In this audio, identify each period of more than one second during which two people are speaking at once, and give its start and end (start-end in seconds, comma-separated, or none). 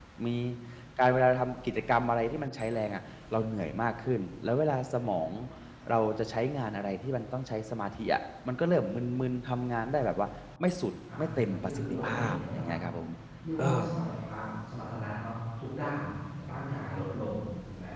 11.2-12.6